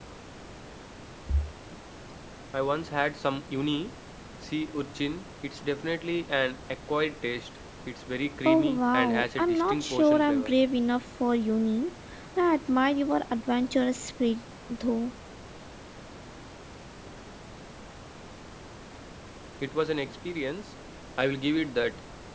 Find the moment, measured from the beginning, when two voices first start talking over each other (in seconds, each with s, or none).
8.4 s